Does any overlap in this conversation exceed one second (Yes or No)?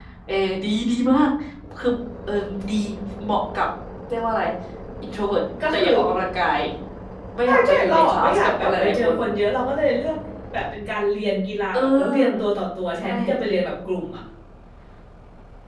Yes